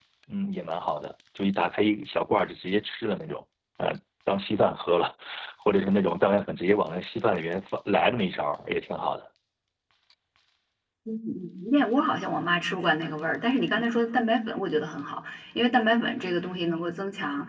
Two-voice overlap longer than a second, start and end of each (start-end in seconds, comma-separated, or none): none